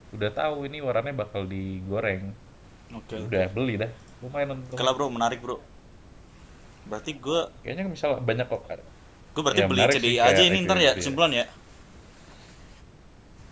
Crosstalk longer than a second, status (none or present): present